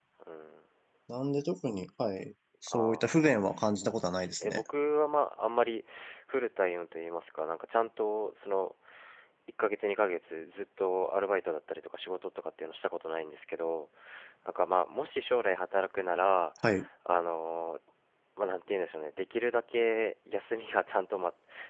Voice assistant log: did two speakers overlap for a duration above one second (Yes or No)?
Yes